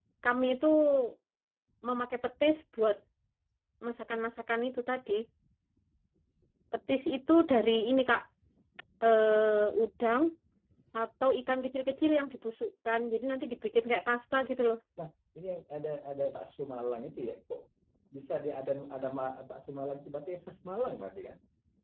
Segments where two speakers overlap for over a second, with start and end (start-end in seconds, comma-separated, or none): none